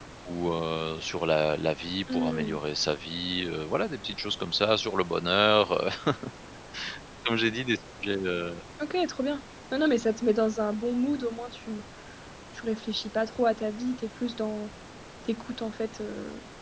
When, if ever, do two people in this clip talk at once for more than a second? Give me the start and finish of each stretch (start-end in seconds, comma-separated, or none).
none